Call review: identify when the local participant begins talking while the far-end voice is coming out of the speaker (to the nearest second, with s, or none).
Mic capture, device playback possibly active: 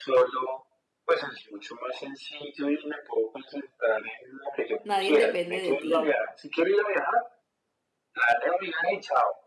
5 s